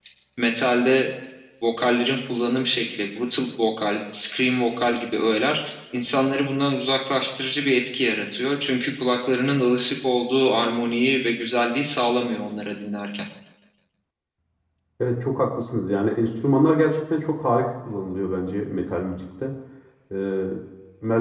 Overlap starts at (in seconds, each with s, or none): none